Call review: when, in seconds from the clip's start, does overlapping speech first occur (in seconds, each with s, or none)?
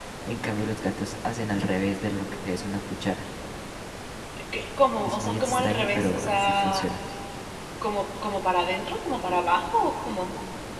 5.0 s